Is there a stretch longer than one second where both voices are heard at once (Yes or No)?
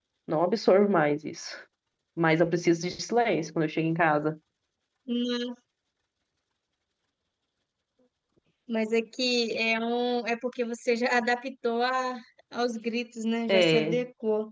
No